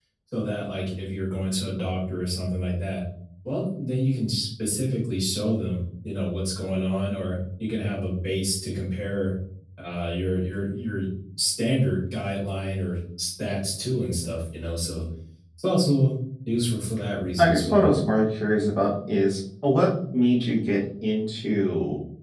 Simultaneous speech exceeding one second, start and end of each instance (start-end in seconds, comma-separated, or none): none